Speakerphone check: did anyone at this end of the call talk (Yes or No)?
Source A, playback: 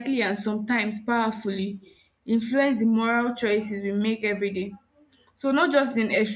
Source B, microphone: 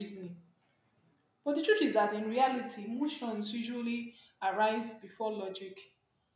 Yes